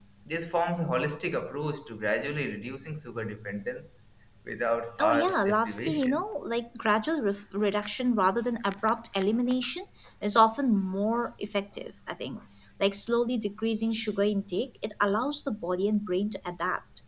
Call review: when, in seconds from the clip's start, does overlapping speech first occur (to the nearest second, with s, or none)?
5 s